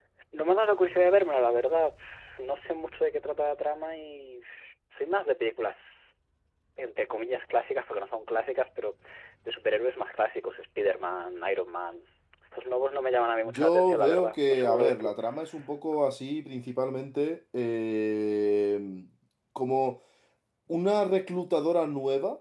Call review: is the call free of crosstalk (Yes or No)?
No